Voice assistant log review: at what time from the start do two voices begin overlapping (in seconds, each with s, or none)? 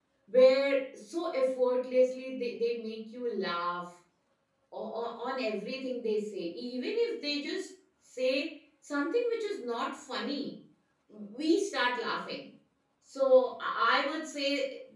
none